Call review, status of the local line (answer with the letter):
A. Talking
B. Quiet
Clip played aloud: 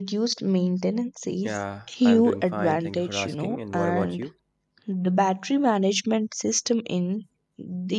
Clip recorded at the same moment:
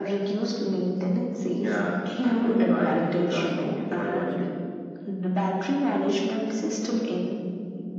B